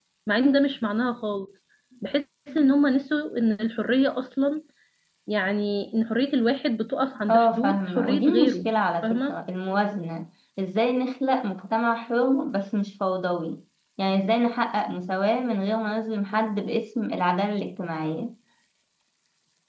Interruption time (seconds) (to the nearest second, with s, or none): 7 s